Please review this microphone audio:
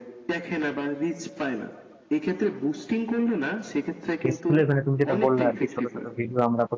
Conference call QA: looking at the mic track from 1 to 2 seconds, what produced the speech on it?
echo only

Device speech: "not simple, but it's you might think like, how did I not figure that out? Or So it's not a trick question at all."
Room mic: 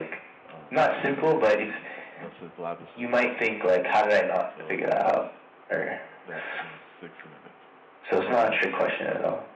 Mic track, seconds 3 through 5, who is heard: both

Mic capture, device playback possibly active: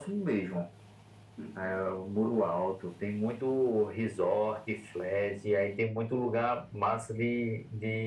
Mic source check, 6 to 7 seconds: echo only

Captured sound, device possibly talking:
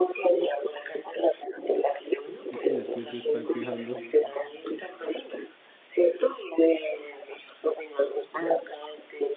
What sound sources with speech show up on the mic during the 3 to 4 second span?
both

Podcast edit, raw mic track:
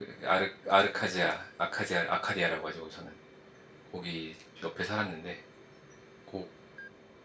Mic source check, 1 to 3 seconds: user only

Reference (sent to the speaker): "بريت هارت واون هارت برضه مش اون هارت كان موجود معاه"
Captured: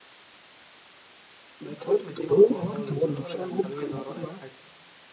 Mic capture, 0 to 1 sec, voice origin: neither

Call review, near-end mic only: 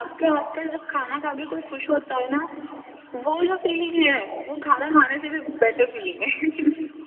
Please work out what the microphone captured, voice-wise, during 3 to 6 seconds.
echo only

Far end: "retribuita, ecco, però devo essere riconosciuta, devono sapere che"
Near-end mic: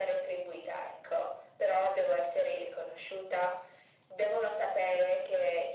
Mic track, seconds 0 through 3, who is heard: echo only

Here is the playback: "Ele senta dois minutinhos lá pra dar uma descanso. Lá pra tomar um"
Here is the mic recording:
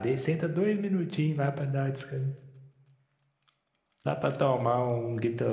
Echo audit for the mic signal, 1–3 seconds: echo only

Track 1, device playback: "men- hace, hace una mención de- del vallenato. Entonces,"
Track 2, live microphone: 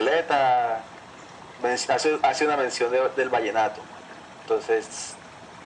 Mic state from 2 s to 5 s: echo only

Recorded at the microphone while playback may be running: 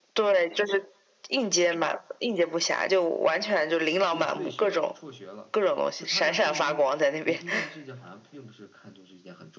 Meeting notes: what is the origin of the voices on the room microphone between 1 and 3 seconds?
echo only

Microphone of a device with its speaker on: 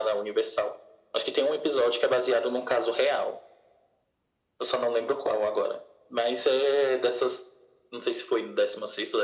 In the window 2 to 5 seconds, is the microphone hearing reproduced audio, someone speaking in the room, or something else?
echo only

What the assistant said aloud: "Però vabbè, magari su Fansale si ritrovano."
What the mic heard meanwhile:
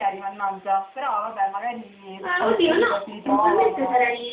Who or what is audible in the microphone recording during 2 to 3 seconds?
both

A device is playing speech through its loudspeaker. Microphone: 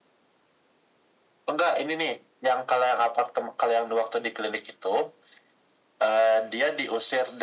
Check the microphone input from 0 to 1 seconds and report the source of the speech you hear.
neither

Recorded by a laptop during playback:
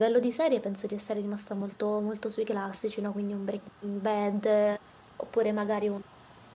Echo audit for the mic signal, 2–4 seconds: user only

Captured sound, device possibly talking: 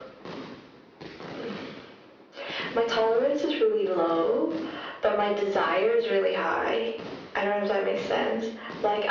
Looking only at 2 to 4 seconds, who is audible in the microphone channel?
echo only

